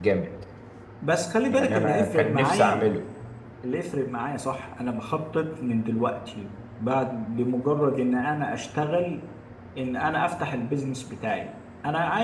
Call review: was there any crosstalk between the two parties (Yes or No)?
Yes